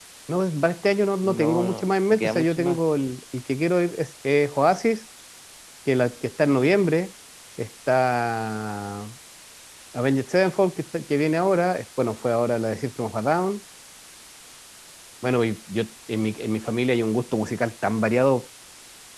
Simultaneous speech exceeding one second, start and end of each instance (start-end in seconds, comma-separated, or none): 1.2-2.8